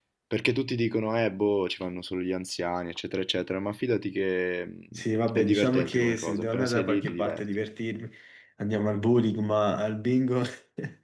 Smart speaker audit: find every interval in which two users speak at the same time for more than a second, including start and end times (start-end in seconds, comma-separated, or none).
5.3-7.4